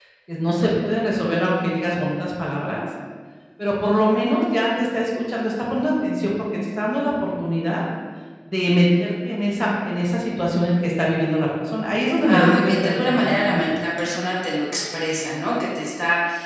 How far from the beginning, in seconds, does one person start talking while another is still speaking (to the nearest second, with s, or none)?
12 s